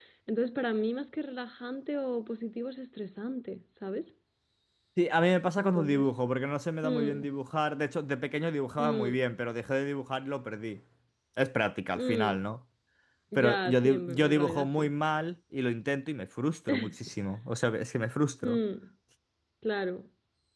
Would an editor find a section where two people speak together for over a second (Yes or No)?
Yes